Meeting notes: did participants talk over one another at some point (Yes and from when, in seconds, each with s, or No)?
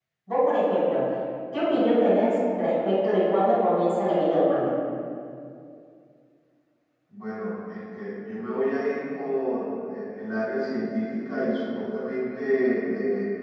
No